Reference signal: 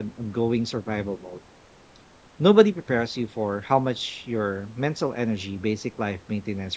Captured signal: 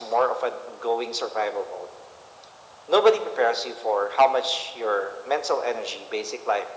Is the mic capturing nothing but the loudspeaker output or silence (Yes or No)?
Yes